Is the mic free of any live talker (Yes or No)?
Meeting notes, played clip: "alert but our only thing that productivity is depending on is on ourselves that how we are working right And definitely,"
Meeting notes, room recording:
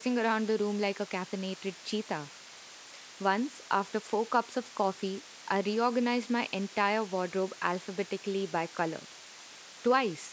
No